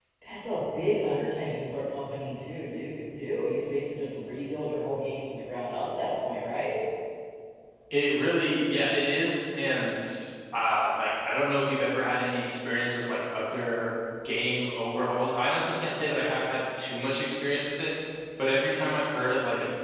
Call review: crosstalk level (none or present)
none